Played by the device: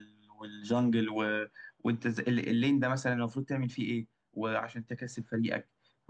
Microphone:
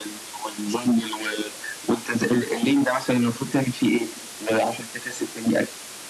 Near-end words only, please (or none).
none